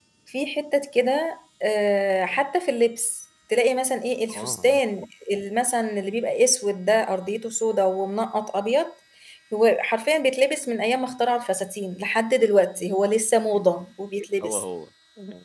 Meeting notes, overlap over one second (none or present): none